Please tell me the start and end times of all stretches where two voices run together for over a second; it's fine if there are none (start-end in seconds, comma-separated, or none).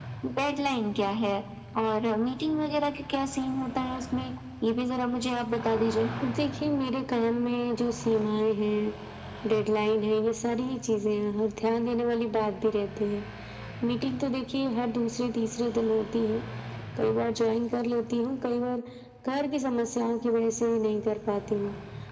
none